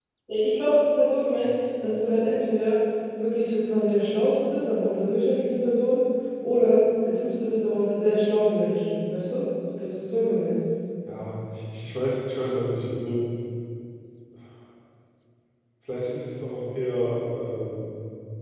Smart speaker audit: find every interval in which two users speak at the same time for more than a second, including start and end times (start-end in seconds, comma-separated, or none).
none